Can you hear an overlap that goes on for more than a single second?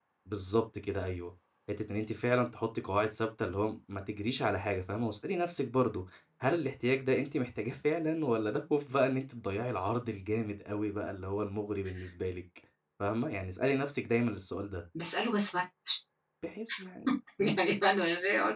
No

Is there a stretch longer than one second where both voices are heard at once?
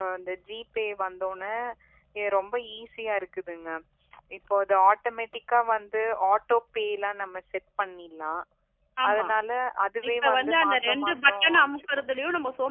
Yes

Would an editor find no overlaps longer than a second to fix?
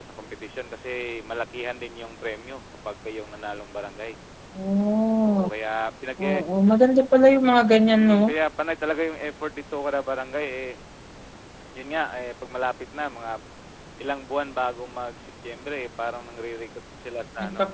Yes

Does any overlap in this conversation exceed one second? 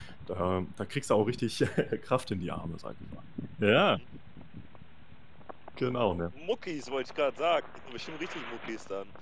No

